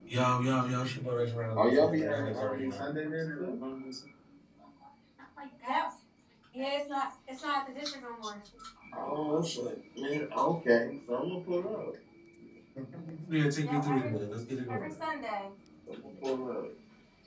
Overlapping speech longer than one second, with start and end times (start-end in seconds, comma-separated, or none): 1.6-2.8